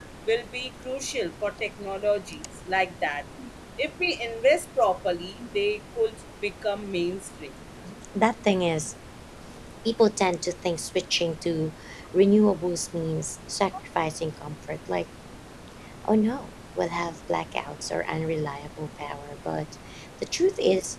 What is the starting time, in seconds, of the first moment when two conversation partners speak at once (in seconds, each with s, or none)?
none